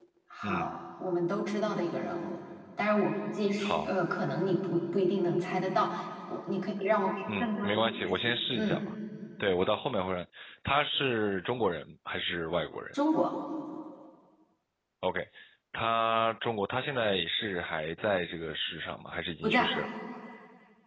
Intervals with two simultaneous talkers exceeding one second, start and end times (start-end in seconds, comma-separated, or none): 7.4-8.8